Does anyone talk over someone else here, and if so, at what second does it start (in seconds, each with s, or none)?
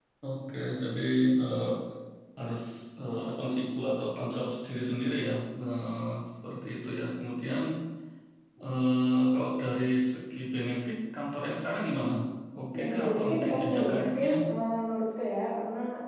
12.8 s